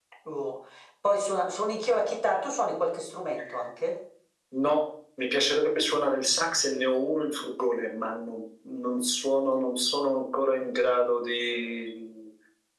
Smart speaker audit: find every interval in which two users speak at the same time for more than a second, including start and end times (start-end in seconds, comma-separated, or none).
none